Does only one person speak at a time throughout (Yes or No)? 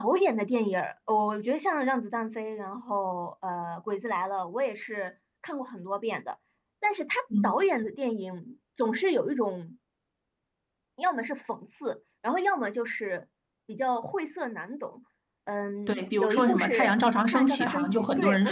No